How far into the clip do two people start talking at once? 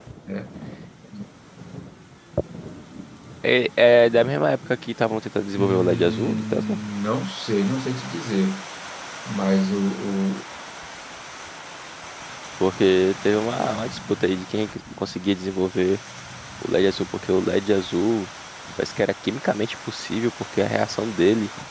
6 s

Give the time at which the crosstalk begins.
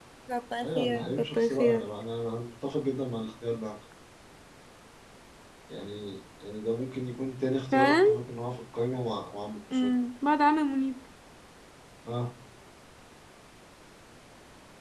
1 s

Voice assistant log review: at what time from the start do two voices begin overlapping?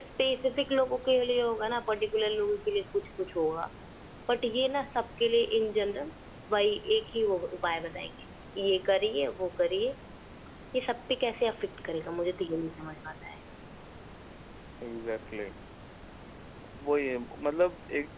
none

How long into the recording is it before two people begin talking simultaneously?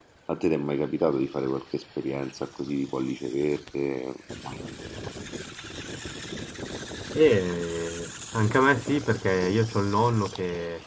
none

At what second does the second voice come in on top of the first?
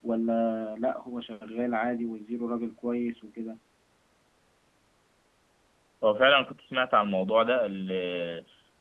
none

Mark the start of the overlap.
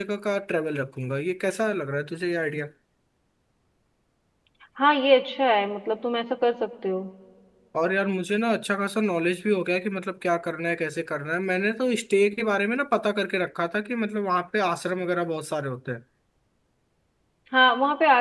none

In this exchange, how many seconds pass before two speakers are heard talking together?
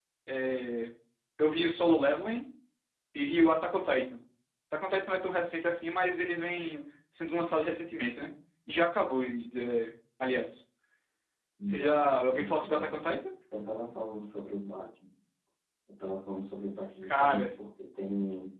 12 s

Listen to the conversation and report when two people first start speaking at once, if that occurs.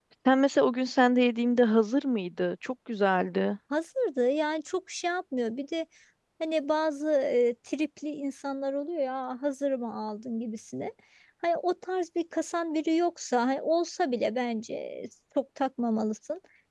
none

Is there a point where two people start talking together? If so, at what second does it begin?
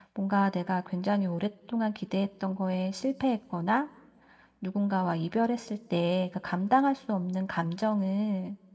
none

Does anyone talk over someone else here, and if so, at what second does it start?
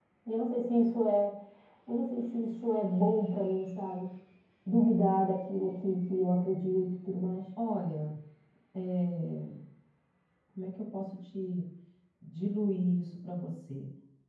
none

